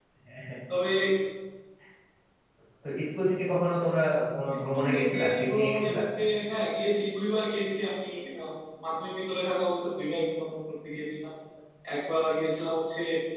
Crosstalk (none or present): present